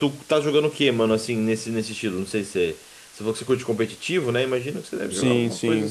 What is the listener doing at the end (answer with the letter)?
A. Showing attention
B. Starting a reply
B